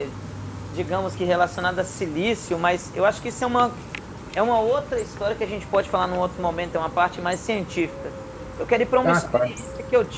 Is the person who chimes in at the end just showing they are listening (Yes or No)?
Yes